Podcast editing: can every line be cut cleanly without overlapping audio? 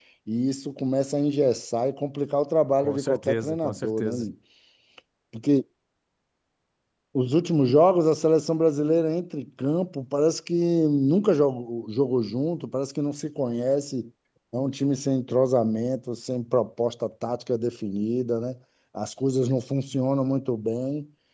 No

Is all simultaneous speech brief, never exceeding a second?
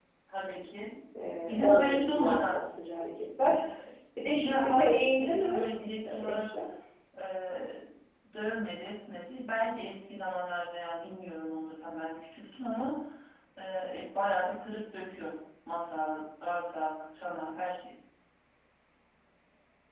No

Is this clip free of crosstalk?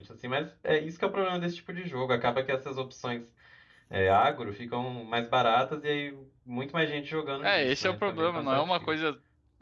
No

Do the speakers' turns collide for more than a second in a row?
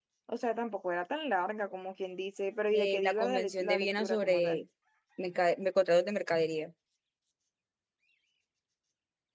Yes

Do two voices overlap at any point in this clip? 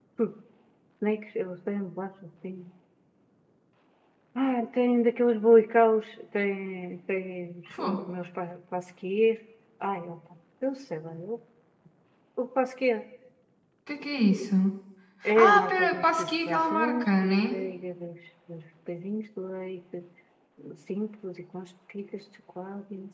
Yes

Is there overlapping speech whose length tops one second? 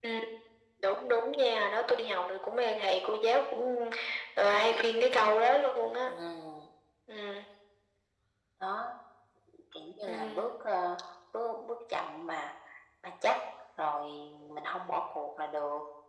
No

